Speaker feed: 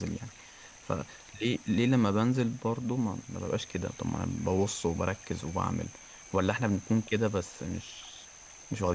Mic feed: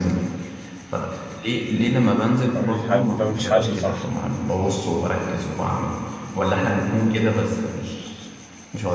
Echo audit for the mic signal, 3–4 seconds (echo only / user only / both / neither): both